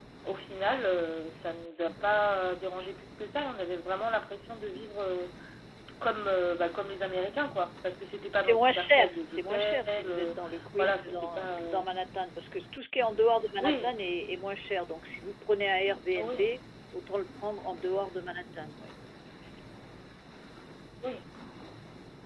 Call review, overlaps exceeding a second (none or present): present